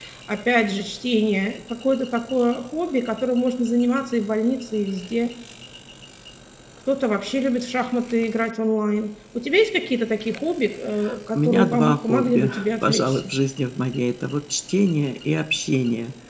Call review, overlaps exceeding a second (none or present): present